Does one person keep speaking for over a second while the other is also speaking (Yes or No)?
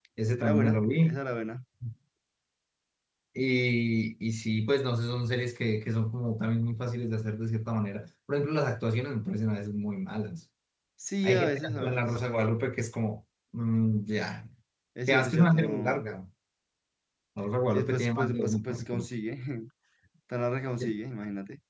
Yes